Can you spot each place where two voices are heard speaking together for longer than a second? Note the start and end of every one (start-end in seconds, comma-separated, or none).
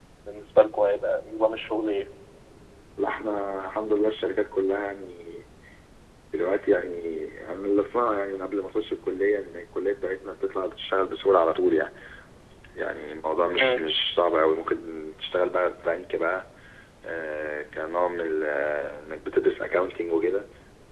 none